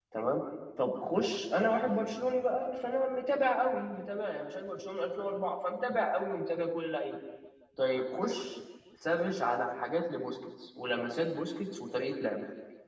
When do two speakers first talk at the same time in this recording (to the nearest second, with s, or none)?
none